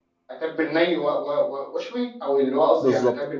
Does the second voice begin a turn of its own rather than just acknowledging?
Yes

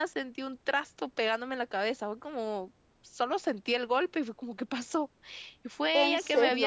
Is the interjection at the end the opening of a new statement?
No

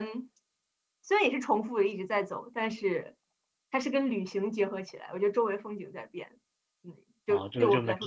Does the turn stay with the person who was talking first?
No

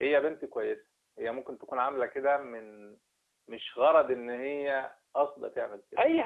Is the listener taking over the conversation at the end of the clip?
Yes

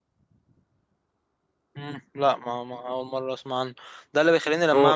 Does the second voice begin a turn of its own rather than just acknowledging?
No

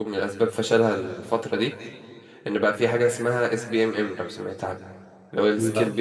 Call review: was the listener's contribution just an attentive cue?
Yes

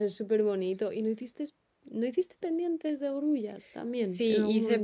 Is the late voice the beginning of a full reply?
Yes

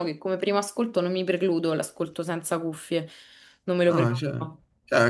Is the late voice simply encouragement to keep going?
No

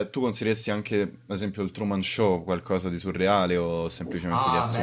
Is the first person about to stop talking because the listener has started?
Yes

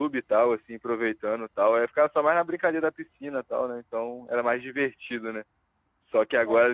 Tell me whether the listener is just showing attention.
Yes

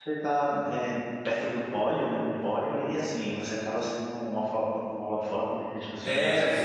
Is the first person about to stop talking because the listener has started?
Yes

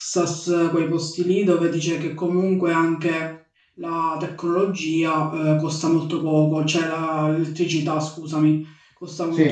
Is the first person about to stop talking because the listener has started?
No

